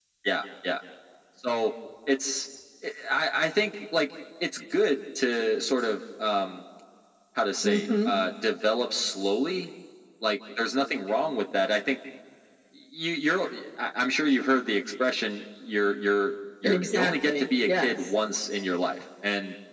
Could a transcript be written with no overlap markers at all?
No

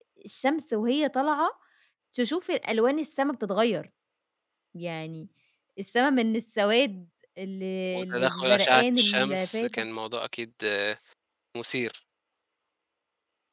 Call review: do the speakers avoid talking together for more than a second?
No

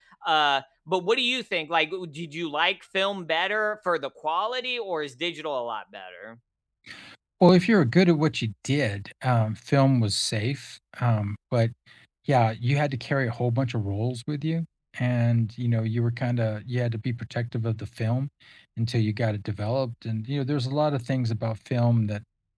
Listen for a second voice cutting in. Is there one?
No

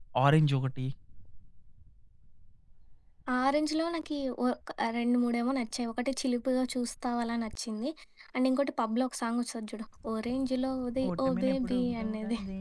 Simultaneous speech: Yes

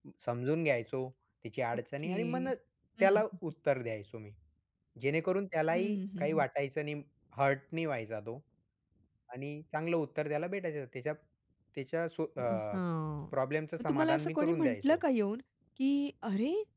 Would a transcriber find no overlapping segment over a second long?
No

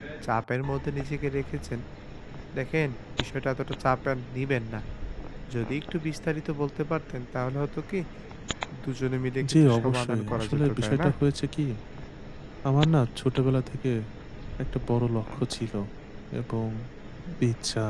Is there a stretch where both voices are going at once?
Yes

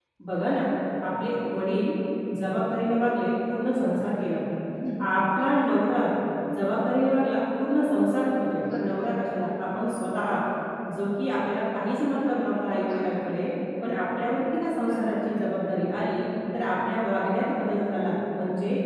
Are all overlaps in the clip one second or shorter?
Yes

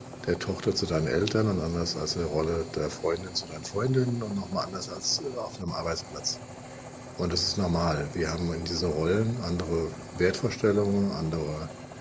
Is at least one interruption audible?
No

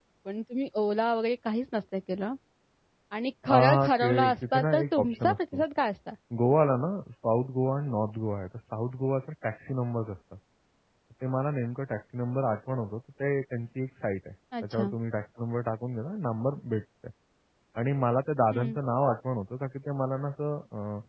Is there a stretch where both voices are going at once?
Yes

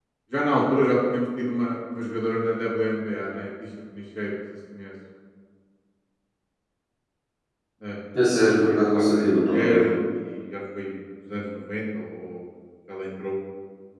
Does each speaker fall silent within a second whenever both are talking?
No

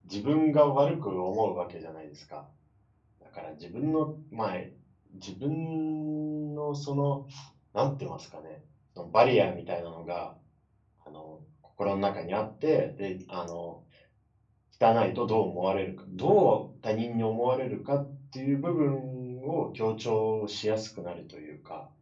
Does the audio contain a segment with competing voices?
No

